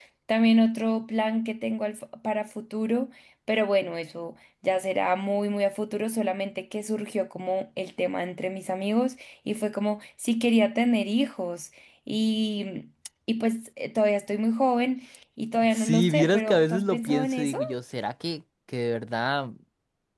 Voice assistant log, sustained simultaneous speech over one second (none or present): present